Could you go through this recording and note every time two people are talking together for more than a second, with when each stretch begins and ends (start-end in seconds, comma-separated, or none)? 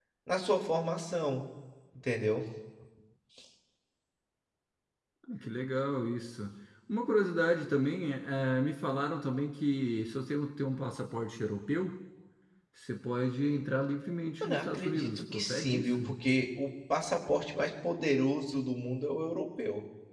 14.4-16.1